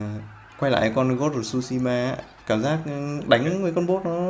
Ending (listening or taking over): listening